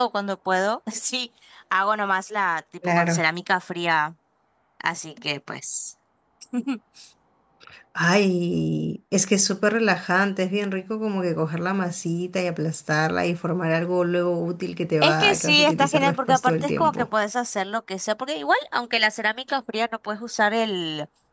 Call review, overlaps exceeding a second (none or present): present